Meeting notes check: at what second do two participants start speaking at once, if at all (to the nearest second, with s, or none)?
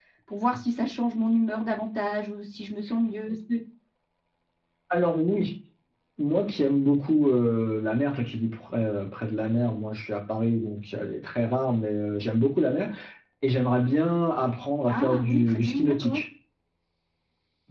15 s